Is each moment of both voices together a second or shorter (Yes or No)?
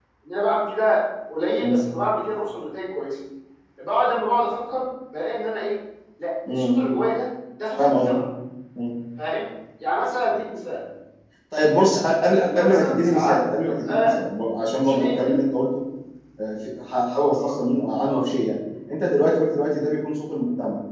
No